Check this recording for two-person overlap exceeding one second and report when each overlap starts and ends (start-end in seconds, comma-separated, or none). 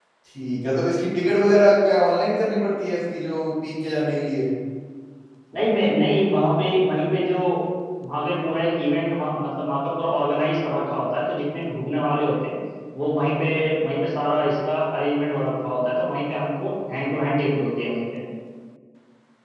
none